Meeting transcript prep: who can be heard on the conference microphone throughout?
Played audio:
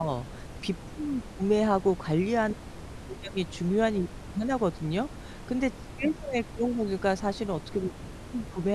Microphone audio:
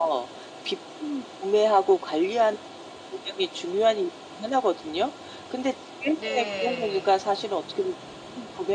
both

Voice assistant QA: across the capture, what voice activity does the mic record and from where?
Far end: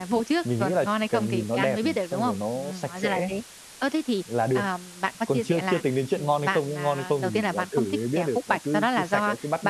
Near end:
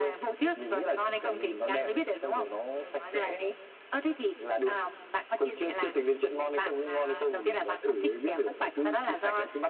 echo only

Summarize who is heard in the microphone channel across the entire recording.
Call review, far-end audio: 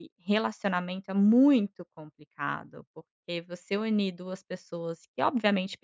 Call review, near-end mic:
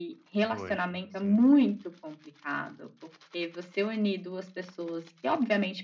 both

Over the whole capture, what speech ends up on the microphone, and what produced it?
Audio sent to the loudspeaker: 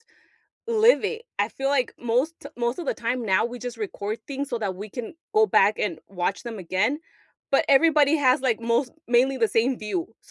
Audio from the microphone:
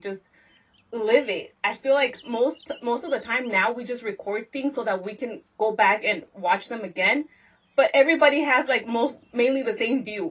echo only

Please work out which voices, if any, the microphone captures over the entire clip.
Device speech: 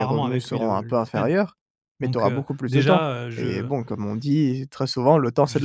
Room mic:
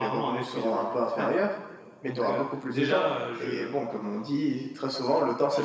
echo only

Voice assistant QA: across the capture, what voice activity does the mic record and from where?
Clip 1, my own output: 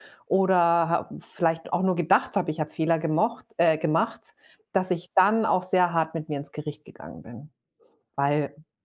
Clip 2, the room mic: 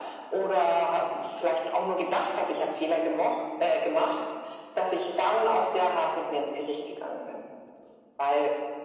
echo only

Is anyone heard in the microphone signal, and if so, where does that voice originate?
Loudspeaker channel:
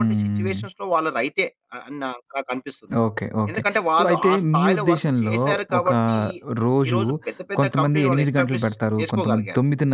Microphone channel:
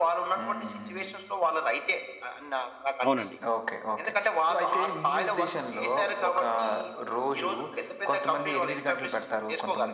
both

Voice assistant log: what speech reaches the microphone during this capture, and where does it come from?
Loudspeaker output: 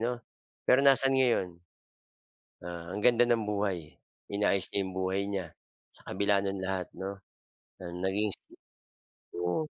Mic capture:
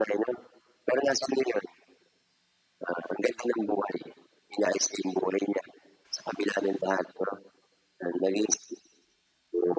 echo only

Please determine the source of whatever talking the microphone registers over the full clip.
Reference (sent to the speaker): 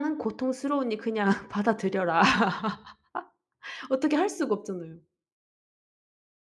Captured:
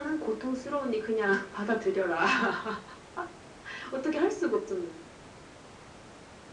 echo only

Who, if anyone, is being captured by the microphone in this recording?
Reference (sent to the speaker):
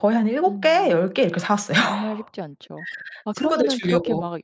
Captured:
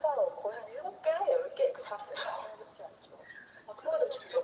echo only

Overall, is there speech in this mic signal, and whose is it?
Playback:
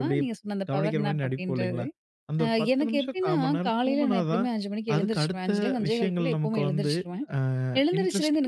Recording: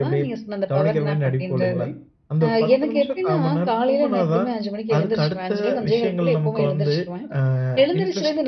echo only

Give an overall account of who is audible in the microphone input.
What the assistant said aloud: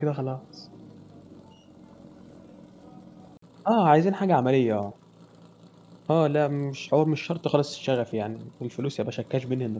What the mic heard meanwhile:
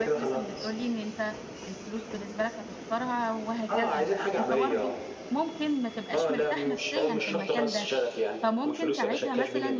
both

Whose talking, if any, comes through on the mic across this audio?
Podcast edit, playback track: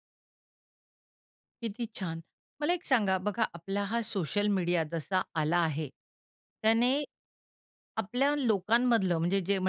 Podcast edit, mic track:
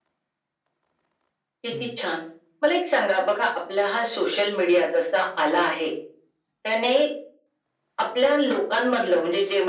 both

